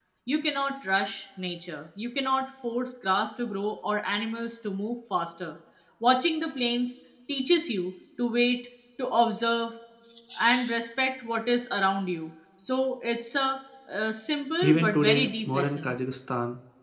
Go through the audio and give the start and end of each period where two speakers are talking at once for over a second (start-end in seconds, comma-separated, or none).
14.6-15.9